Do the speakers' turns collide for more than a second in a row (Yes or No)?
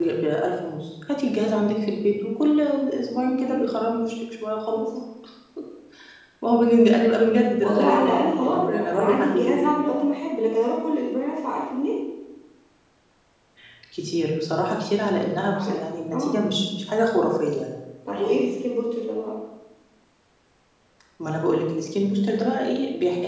Yes